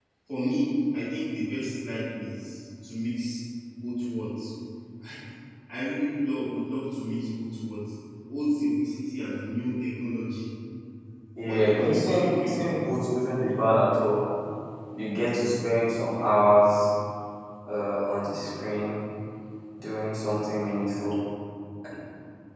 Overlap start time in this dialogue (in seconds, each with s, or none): 11.4 s